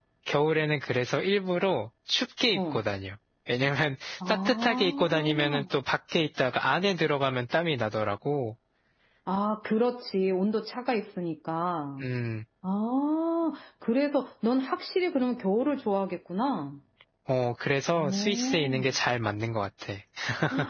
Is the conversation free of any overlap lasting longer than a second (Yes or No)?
No